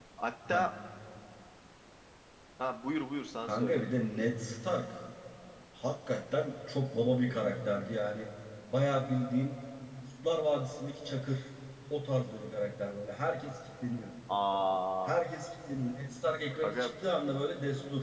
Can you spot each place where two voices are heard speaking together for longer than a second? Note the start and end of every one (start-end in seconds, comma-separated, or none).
none